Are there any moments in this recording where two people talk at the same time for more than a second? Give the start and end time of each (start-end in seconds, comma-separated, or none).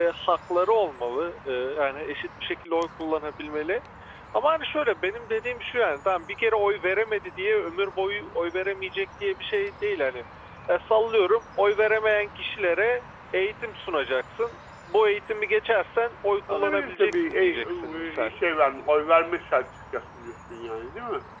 16.5-18.3